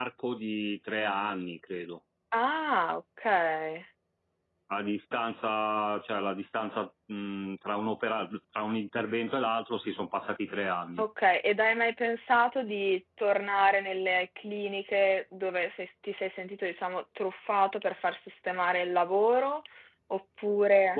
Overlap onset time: none

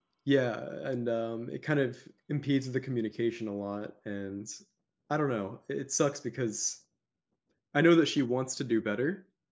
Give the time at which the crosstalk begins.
none

